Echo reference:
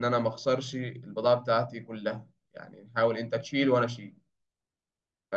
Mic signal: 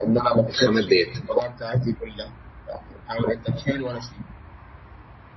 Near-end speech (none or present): present